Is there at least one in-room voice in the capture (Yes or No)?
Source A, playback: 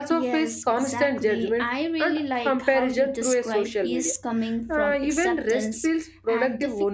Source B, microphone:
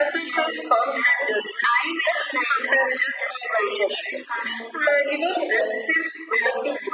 No